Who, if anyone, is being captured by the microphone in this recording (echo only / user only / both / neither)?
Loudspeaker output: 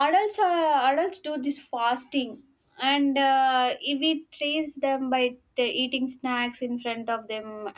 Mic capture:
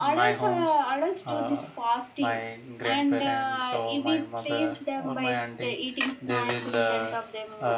both